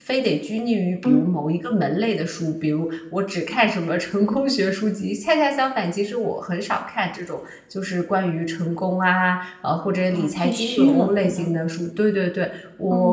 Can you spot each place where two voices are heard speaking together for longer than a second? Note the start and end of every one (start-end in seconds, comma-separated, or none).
10.1-11.5